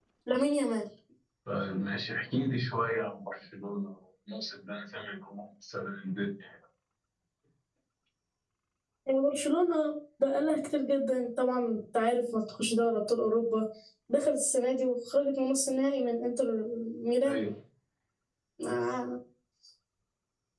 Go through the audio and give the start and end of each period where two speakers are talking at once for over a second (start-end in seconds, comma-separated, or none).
none